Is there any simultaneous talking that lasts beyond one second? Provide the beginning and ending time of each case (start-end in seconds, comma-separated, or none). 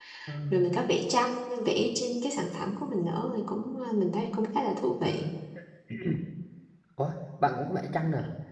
none